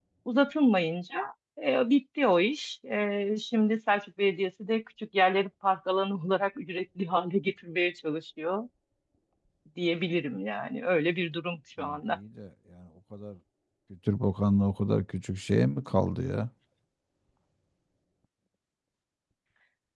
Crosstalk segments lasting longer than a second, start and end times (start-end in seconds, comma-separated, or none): none